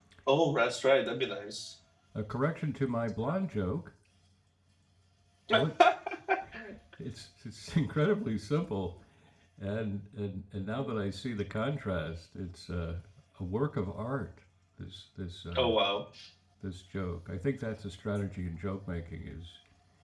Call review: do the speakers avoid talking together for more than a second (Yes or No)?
Yes